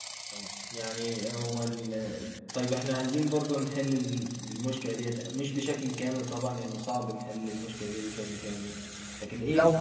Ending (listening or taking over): listening